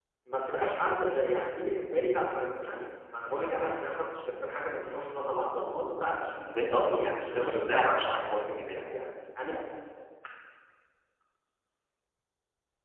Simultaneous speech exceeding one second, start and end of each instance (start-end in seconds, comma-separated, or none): 6.6-8.1